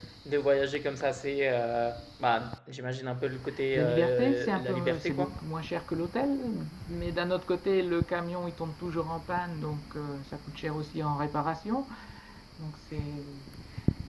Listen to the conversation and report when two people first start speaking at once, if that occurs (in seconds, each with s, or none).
3.7 s